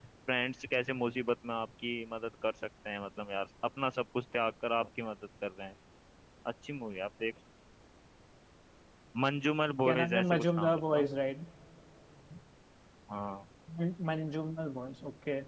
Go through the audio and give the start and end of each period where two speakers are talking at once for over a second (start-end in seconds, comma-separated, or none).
9.8-11.1